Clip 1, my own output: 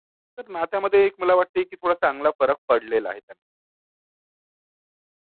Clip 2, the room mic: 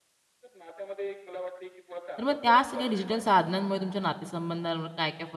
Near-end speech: present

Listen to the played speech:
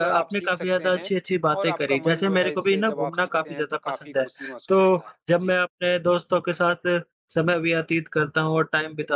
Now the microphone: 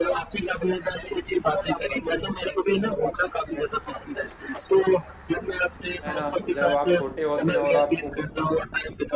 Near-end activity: present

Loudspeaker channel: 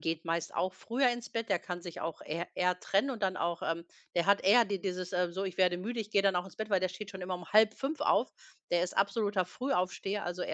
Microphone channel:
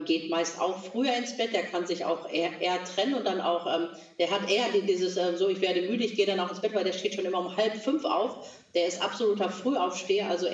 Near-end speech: none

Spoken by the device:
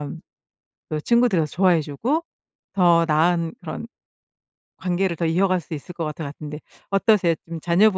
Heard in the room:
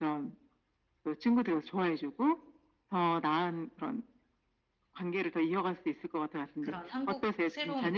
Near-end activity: present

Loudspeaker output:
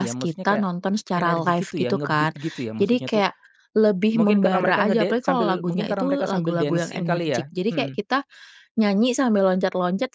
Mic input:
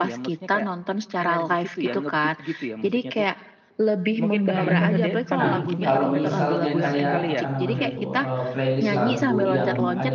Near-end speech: present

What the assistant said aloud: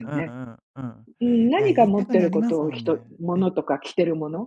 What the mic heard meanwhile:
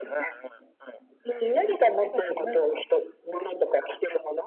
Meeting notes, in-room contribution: none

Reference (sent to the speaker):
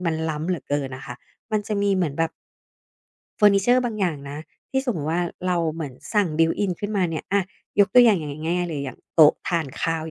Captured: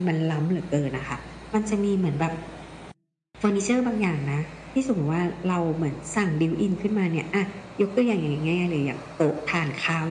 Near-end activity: none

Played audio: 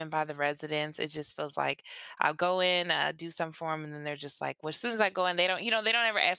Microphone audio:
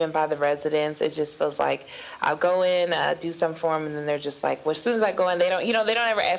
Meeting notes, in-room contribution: none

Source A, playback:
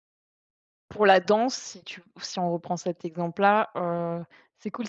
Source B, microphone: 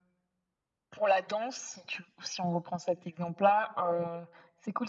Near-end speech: none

